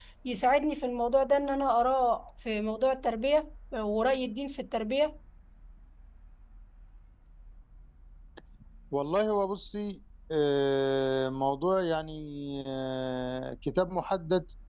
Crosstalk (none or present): none